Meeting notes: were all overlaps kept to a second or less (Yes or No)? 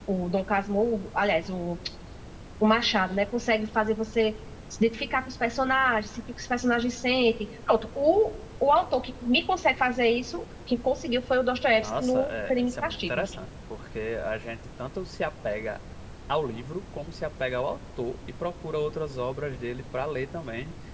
No